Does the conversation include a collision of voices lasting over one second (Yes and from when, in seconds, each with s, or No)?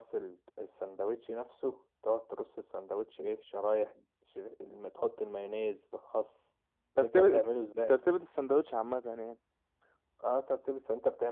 No